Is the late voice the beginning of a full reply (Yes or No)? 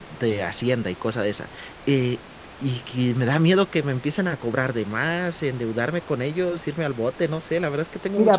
Yes